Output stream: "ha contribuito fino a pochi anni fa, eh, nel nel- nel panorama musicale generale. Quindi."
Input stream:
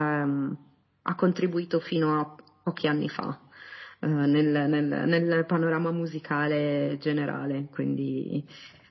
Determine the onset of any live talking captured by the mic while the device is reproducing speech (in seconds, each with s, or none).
none